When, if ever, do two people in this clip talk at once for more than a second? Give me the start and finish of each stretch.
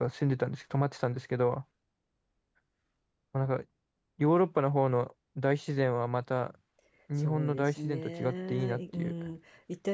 7.2-9.1

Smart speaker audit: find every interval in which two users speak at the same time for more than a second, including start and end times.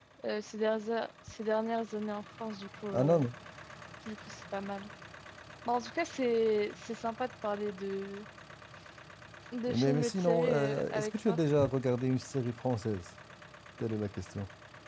9.7-11.4

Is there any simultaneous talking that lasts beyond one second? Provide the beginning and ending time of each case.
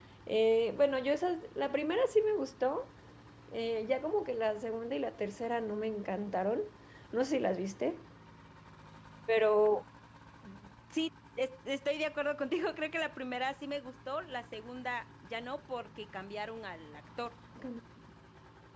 none

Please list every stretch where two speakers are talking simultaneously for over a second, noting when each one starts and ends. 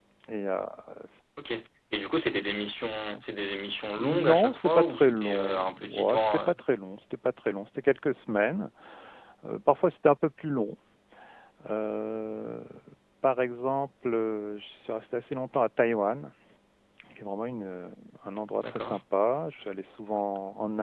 4.0-6.5

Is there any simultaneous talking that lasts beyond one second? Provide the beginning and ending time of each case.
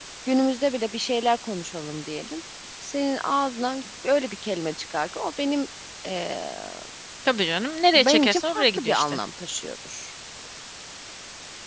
7.9-9.2

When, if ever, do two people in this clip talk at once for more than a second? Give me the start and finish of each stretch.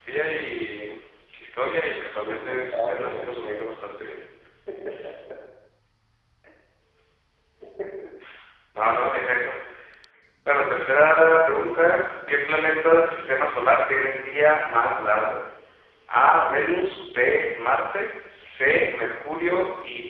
2.1-3.9

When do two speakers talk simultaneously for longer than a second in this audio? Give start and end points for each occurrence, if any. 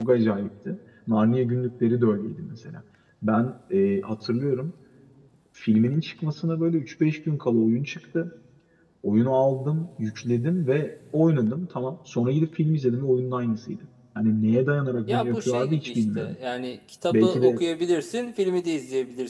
15.1-16.4

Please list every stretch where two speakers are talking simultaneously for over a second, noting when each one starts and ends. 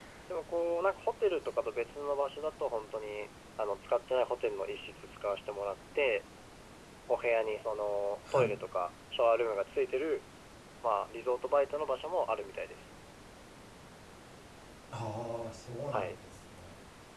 none

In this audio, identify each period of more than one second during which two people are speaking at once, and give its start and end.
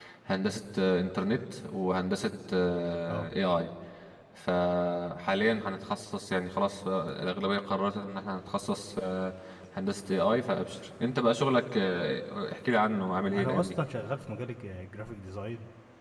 none

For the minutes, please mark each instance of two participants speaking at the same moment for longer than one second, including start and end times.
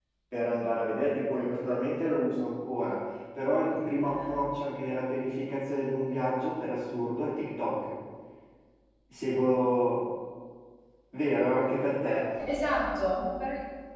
none

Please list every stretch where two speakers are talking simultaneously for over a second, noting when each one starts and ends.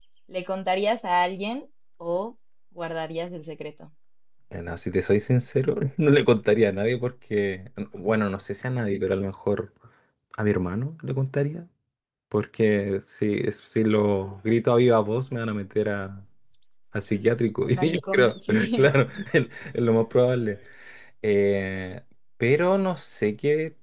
17.7-18.9

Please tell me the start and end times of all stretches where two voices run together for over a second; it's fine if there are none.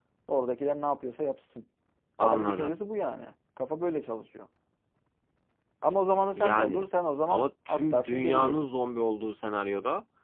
7.3-8.6

